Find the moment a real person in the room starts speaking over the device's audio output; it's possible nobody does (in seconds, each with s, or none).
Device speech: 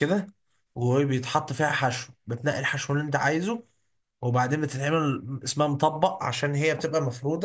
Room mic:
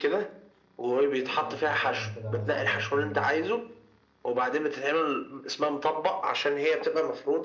1.2 s